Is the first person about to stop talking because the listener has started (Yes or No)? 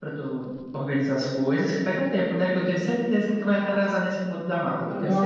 Yes